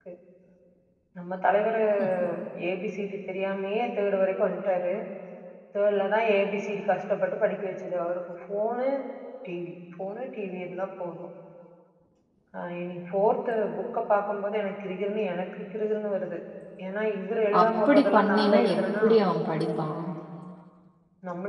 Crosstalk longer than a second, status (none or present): present